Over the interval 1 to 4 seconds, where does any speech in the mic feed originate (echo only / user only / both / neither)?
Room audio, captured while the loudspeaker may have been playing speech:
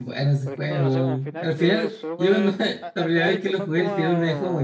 both